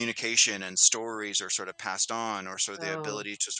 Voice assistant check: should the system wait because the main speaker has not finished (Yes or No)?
Yes